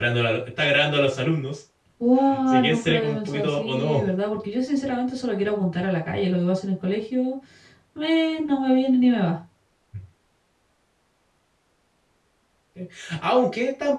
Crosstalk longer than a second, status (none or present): present